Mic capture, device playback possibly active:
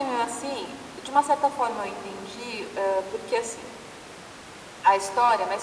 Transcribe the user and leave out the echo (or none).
none